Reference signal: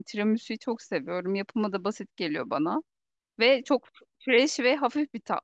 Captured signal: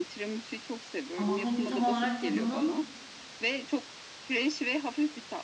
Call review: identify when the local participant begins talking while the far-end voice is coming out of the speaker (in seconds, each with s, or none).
1.1 s